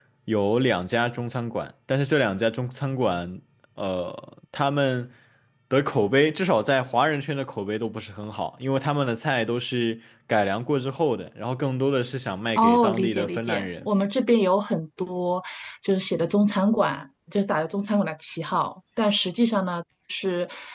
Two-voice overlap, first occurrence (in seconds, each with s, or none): 12.6 s